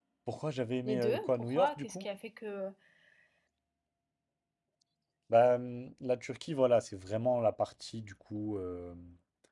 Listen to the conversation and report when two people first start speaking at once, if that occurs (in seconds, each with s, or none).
0.8 s